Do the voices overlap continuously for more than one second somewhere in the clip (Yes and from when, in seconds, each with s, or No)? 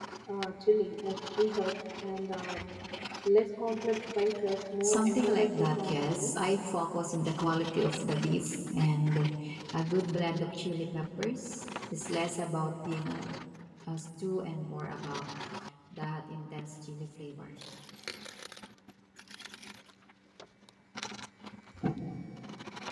Yes, from 4.8 s